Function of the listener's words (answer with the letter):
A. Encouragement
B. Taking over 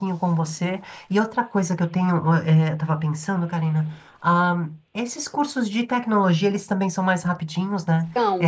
B